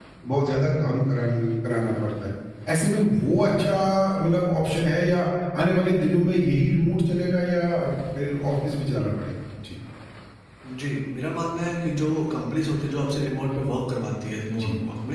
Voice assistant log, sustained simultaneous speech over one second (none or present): none